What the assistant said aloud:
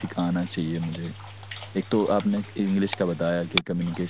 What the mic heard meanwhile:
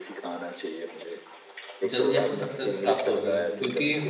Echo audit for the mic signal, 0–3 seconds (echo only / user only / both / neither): both